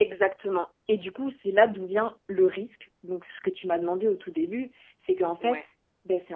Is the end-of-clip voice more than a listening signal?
No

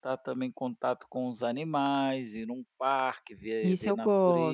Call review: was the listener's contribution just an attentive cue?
No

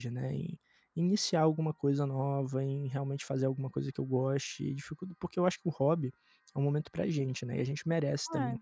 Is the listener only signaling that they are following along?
No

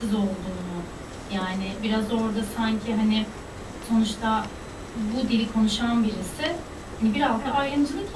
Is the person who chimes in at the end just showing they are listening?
Yes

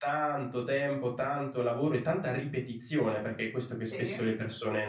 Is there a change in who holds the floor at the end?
No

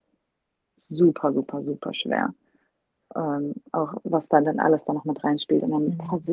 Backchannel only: Yes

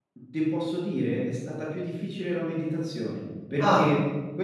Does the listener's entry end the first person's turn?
No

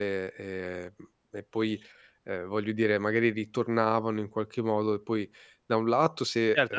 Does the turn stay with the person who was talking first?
No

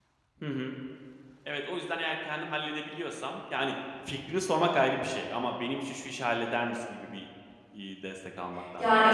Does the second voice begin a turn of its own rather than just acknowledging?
Yes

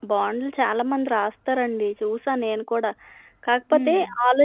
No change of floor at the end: Yes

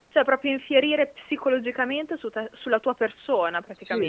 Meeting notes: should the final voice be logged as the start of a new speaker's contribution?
Yes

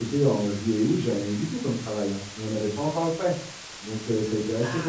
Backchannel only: Yes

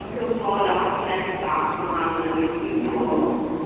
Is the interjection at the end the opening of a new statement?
No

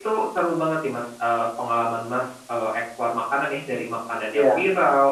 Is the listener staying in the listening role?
Yes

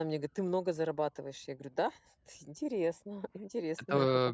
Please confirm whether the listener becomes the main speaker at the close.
Yes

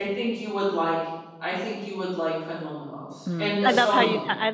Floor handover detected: Yes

